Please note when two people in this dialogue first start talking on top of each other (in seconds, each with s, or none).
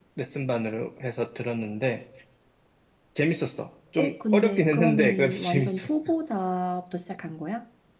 4.0 s